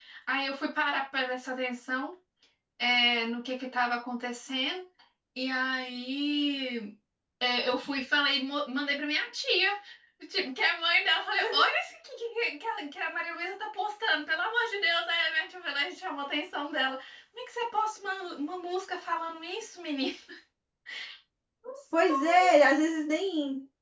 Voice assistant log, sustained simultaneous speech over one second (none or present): none